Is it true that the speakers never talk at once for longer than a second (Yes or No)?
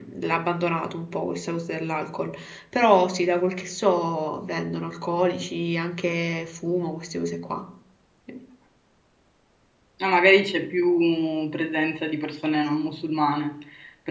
Yes